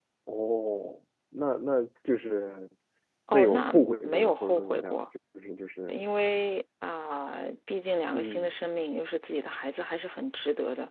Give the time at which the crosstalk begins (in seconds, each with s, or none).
3.3 s